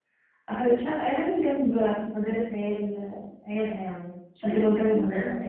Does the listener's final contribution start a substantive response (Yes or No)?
Yes